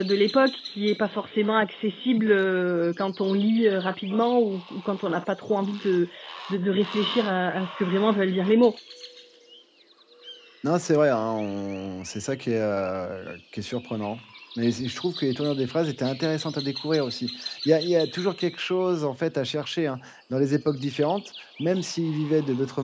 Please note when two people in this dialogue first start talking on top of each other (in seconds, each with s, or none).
none